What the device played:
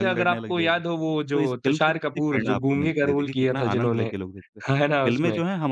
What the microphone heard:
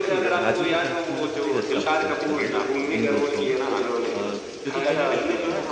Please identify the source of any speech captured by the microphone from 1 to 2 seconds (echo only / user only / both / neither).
both